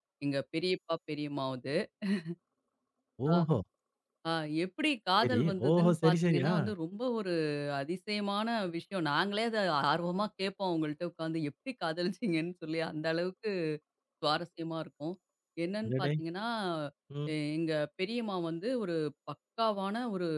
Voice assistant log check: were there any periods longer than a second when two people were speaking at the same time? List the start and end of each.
5.2-6.5

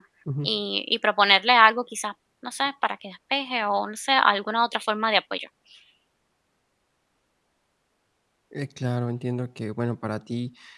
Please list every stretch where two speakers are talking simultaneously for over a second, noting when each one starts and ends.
none

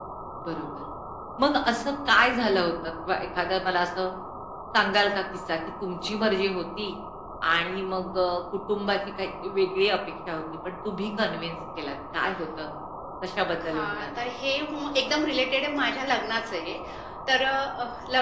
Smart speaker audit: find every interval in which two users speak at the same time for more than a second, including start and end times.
none

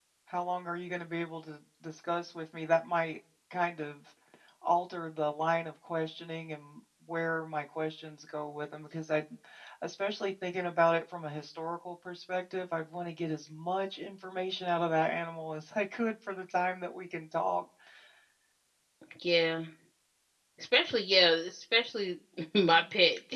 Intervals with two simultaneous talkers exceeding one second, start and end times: none

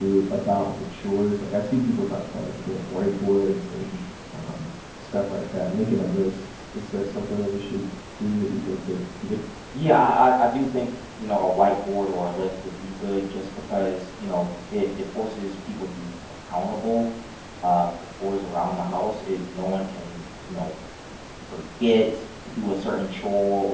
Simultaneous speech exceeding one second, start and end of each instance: none

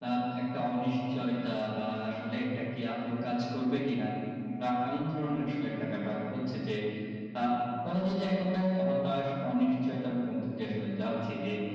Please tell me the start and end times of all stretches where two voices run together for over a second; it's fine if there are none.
none

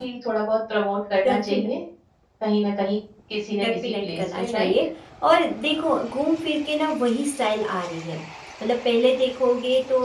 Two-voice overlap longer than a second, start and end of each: 3.5-4.7

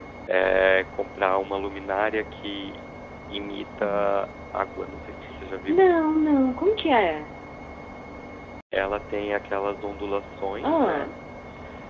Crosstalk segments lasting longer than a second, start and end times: none

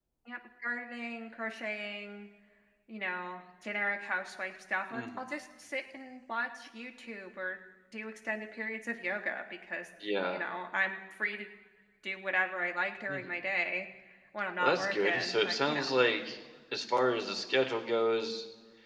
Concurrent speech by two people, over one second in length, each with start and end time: 14.6-15.9

